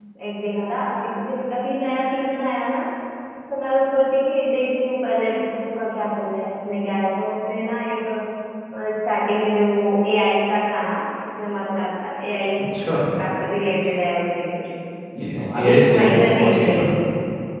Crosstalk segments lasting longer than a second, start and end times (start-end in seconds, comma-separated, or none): 15.3-16.8